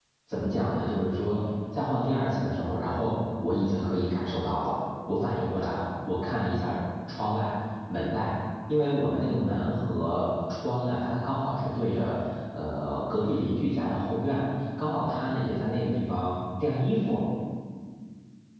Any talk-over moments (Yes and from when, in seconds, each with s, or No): No